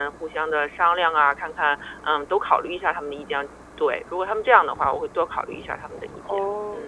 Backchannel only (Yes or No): No